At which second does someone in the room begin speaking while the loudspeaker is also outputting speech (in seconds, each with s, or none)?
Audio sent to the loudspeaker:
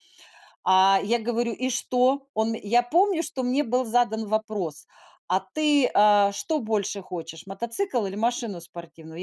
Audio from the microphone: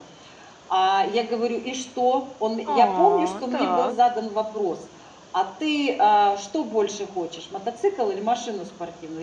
2.6 s